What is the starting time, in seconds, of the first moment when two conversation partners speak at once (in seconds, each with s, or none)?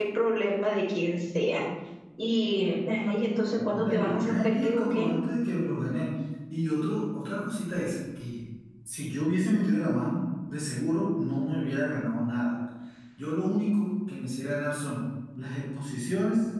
3.6 s